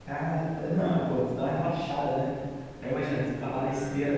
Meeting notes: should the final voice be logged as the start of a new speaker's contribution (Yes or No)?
No